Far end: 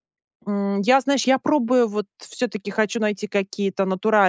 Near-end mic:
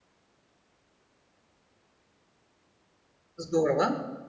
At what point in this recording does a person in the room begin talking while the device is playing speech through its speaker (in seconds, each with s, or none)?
3.4 s